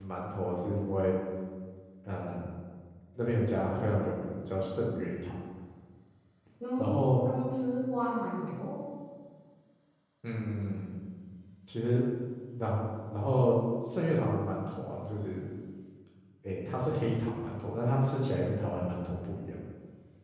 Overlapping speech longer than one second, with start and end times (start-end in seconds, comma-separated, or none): none